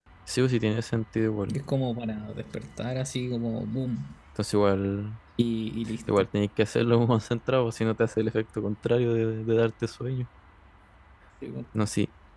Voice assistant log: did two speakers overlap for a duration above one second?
No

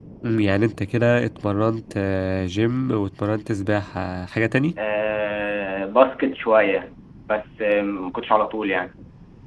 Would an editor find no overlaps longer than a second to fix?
Yes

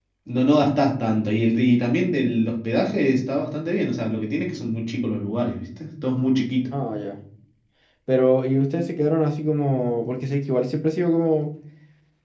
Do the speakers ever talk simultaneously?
No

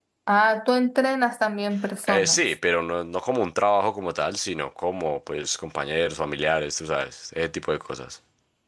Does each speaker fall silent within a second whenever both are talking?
Yes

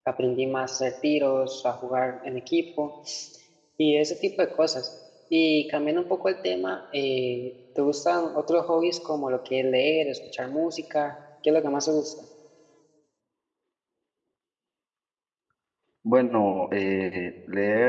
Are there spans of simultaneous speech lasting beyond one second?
No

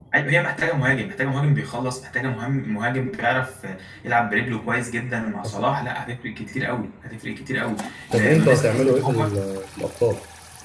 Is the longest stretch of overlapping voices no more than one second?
No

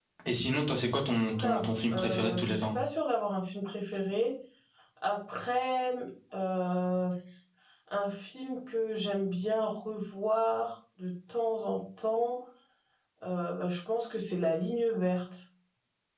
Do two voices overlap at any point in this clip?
Yes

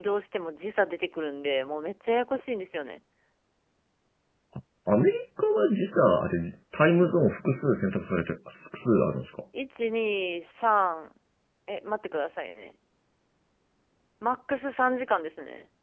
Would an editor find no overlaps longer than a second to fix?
Yes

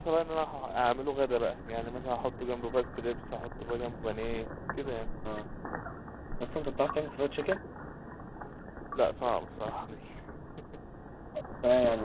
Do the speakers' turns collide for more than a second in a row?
No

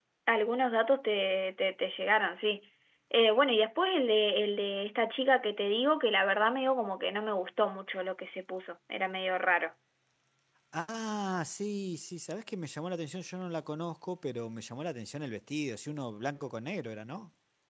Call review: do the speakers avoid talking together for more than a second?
Yes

